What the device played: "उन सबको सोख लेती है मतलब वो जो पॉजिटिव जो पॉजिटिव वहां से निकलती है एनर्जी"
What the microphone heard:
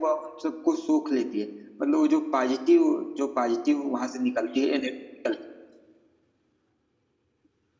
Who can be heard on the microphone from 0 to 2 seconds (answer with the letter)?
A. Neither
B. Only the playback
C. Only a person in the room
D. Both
B